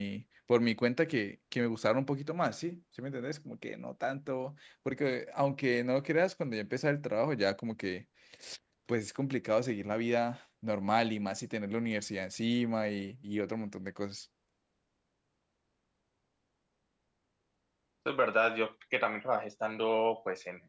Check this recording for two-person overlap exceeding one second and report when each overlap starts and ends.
none

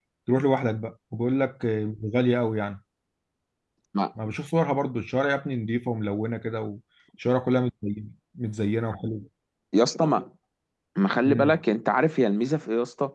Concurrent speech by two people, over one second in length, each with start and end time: none

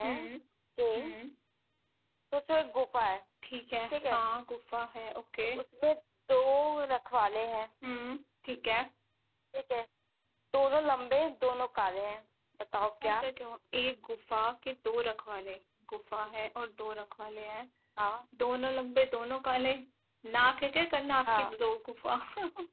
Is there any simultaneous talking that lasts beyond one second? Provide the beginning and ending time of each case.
none

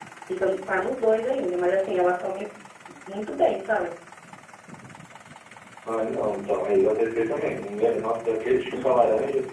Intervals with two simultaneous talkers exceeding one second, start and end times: none

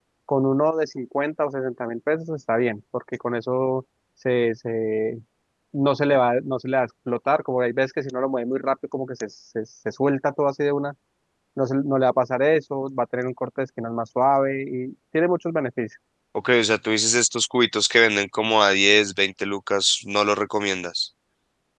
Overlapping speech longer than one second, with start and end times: none

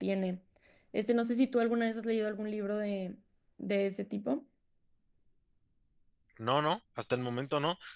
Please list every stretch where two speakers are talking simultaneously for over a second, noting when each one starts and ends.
none

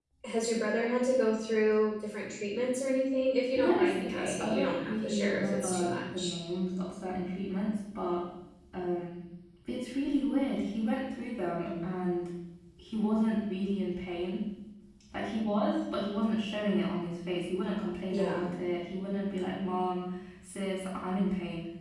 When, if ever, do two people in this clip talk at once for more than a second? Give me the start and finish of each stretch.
3.5-6.3

